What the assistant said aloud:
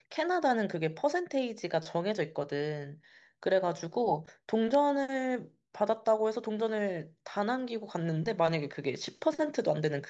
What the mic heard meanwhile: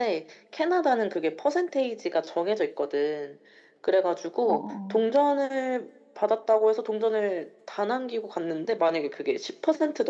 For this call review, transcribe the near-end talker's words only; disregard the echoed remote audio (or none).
어, 어,